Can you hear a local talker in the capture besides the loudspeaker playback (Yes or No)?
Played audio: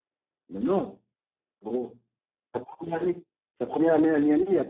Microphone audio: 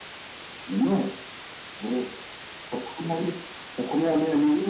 No